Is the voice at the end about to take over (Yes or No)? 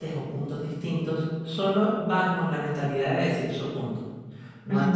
No